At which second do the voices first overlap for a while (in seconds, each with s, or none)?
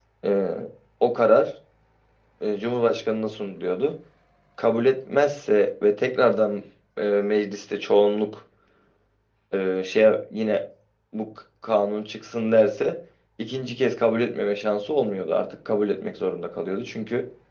none